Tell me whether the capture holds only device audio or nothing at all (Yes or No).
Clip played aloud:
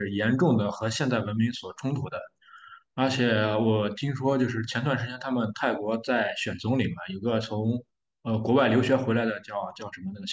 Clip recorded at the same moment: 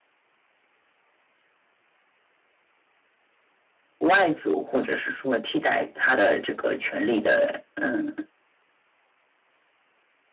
No